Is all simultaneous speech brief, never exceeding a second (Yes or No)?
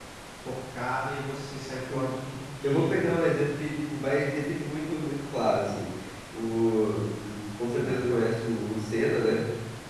Yes